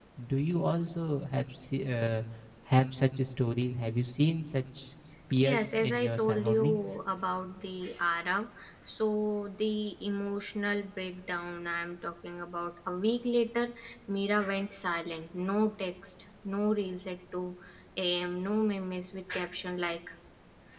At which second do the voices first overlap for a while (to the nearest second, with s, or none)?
5 s